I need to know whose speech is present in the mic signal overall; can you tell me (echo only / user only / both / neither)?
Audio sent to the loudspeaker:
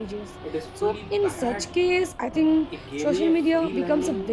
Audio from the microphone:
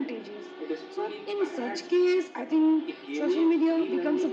echo only